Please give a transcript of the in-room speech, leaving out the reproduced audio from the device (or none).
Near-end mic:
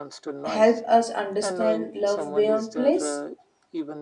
help us understand love beyond place?